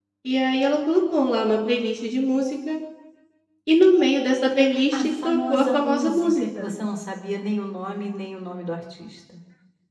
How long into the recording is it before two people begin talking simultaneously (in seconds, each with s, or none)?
4.7 s